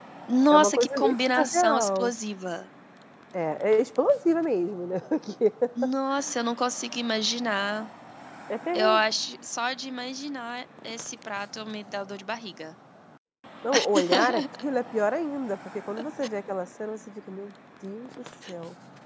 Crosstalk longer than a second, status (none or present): present